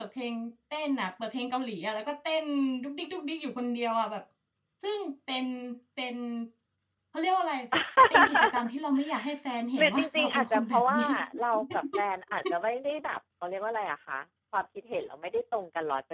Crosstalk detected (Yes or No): Yes